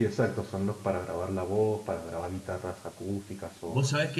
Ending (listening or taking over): taking over